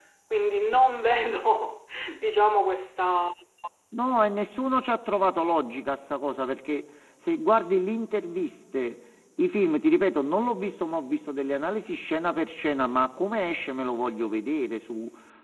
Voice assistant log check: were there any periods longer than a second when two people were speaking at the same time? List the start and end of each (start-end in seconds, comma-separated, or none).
none